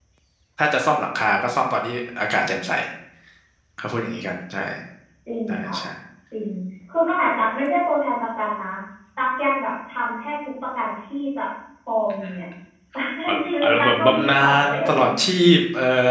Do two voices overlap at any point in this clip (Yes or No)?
Yes